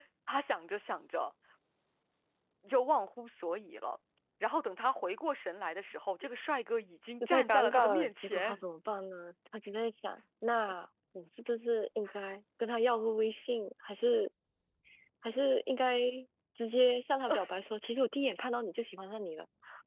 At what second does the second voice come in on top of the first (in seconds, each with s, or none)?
7.2 s